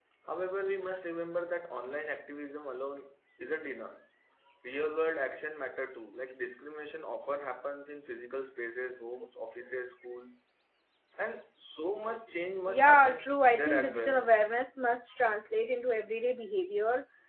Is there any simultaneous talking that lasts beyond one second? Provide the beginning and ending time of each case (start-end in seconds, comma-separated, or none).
12.7-14.3